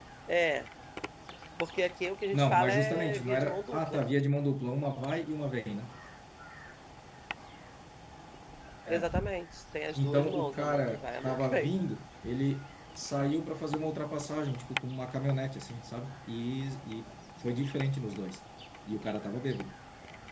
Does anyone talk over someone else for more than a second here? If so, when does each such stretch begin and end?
2.3-4.0, 9.9-11.7

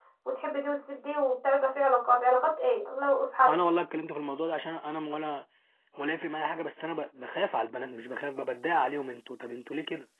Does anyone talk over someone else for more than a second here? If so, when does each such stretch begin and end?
none

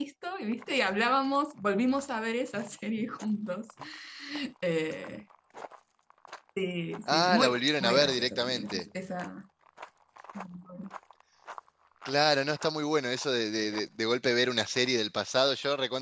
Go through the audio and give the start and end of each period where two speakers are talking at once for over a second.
7.1-8.8

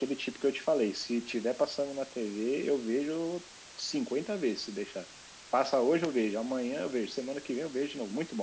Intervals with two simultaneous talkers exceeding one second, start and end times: none

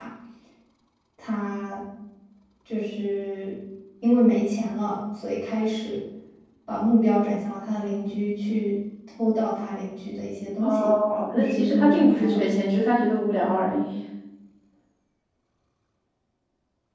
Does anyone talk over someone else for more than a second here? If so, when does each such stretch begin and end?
10.6-12.4

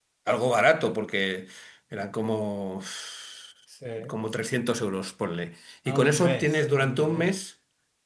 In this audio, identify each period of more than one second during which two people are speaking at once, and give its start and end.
5.9-7.3

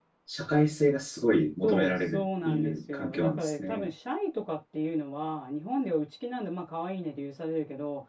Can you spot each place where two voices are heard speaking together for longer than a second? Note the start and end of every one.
1.6-3.9

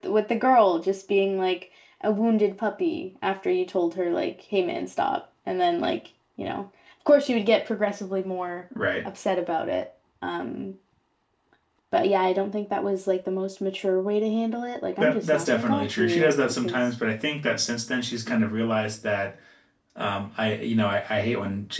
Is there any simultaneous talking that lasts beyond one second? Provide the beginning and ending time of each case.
15.0-16.8

